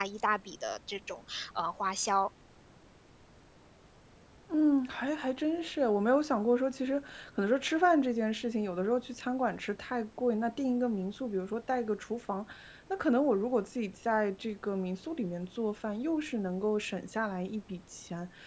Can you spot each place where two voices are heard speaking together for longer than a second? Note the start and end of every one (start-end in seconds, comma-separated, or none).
none